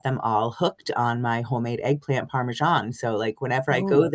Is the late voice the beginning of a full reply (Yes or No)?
No